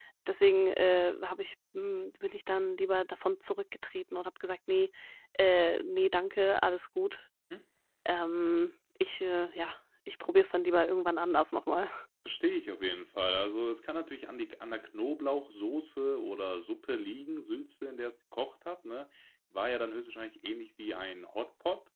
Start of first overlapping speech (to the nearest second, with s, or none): none